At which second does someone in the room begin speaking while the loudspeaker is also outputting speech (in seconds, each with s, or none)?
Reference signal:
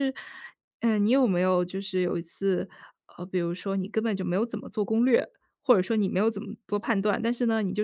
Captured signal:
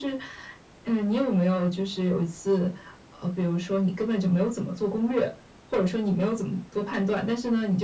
none